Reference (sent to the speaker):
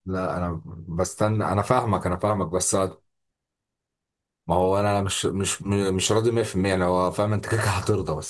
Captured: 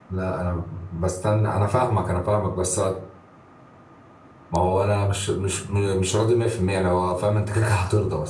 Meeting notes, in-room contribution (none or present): none